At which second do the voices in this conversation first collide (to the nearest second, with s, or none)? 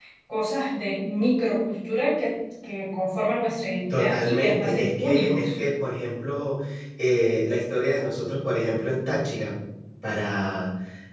4 s